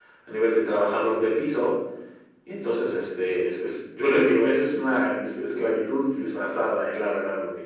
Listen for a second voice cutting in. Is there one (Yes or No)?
No